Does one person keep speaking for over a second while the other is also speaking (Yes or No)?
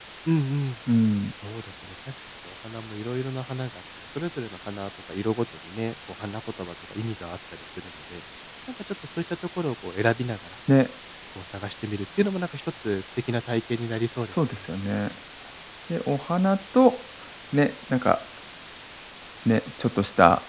No